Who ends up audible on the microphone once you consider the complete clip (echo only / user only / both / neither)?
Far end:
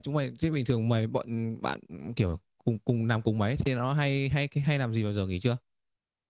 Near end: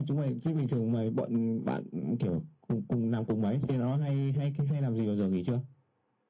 echo only